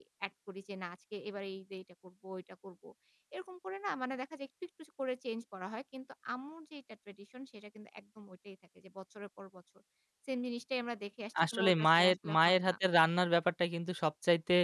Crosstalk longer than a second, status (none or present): present